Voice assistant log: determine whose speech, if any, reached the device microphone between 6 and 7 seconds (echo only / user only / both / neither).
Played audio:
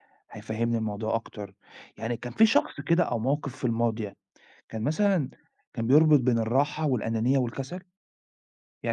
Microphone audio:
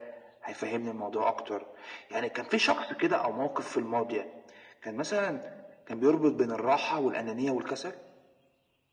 echo only